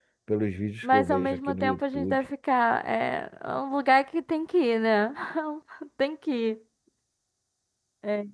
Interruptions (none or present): present